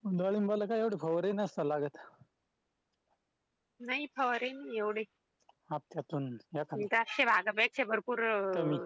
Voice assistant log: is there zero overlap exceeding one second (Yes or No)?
Yes